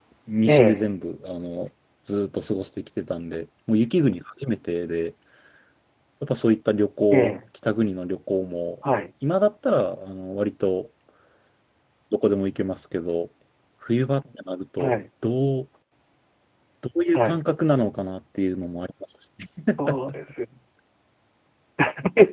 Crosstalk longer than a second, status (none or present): none